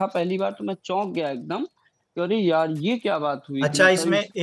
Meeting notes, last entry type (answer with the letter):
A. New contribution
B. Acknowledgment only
A